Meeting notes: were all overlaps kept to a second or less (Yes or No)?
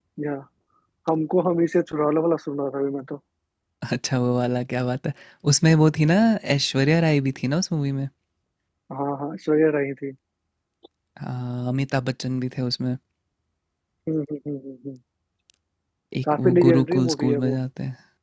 No